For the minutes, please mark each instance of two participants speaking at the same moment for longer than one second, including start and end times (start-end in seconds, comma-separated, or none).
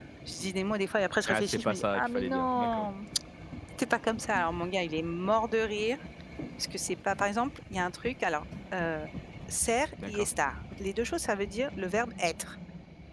1.3-2.9